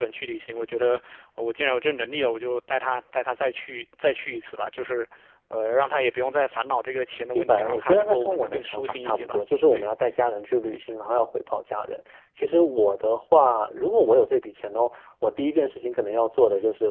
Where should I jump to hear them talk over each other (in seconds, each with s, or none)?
7.4 s